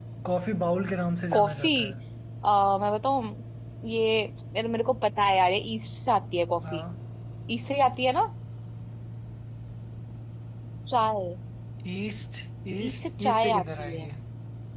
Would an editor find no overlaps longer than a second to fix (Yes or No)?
No